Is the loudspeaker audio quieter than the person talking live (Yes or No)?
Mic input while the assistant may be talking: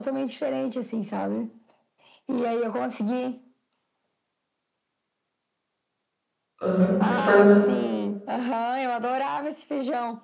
Yes